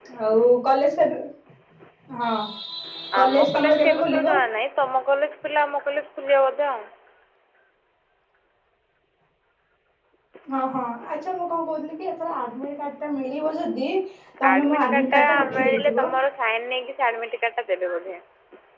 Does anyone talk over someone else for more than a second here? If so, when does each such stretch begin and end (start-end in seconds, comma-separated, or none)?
3.2-4.4, 14.5-16.1